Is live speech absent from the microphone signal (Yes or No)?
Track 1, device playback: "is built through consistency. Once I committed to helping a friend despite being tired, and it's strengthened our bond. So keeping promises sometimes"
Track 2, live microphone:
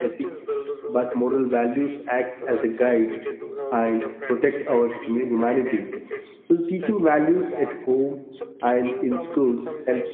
No